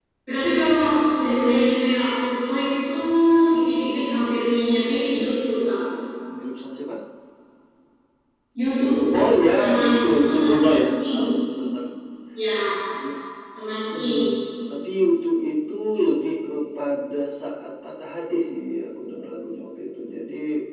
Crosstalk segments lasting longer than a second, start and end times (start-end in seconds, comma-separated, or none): 9.5-11.3